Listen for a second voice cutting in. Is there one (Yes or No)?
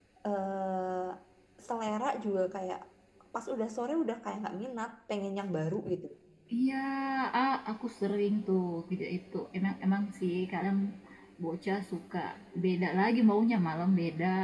No